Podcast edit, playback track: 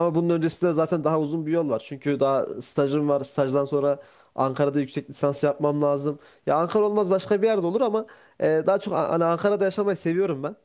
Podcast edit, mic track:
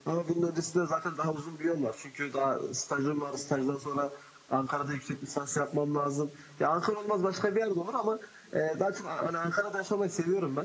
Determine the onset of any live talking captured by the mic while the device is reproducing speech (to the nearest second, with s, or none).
none